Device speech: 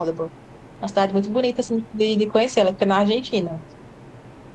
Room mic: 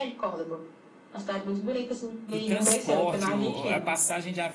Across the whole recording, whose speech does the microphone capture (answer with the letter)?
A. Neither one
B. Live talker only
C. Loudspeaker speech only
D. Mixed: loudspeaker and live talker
D